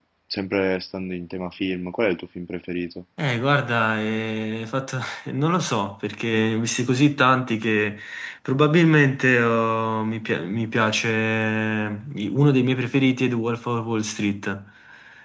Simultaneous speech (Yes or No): No